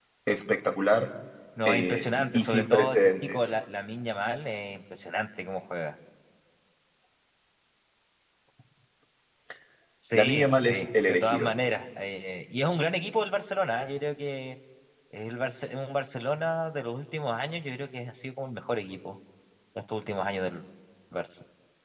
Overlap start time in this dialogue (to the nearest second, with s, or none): 2 s